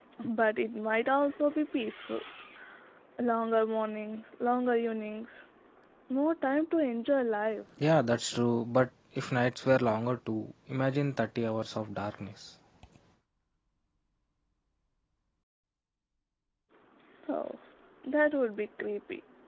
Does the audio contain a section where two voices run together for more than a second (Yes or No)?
No